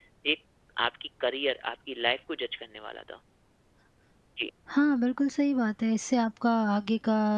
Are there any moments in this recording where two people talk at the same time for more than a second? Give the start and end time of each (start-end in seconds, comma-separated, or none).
none